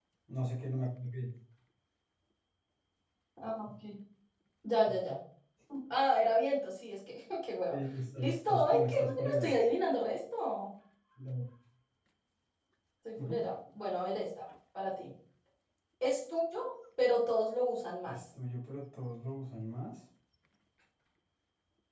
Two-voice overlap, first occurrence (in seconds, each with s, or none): 8.2 s